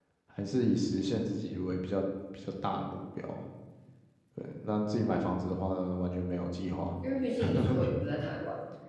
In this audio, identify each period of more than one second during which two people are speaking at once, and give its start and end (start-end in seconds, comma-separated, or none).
none